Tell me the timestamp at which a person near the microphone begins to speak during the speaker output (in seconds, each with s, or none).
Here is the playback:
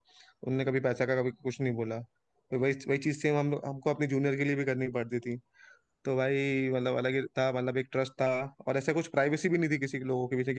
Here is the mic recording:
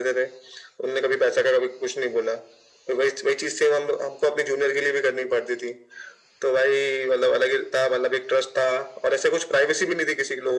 none